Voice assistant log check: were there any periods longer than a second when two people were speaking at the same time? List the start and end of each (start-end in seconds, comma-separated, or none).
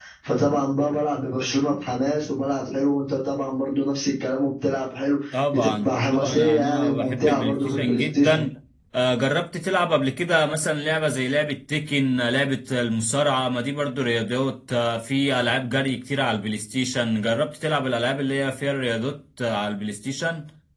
5.3-8.4